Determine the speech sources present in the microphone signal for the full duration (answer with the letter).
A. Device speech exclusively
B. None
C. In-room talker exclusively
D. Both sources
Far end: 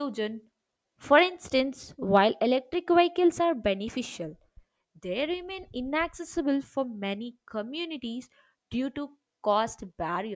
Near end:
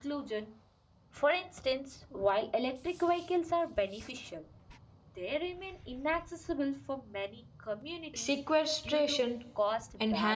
D